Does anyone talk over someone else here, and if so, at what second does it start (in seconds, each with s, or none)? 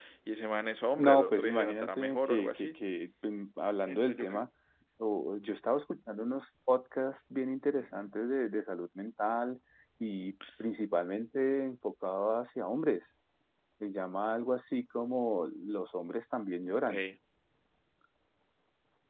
1.0 s